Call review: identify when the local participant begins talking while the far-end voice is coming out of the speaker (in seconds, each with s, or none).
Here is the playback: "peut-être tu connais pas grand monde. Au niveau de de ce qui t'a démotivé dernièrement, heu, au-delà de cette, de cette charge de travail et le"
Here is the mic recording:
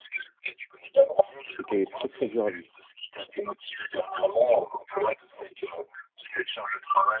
1.4 s